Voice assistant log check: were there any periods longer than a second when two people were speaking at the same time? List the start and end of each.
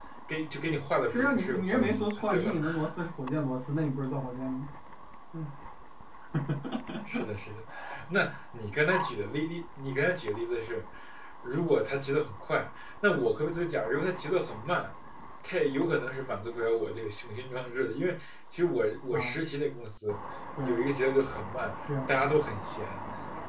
1.1-2.6

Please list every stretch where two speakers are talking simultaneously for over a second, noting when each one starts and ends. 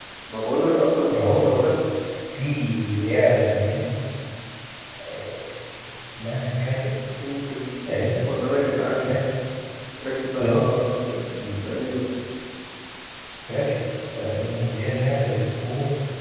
none

